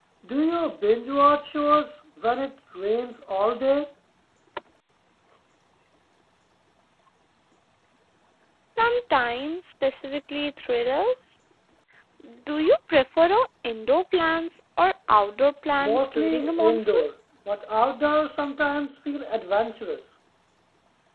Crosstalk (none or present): present